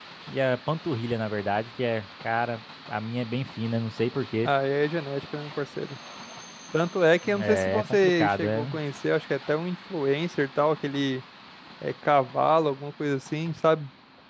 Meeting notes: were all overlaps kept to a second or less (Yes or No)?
No